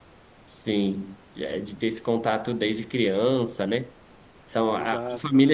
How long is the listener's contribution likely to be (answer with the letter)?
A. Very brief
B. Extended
A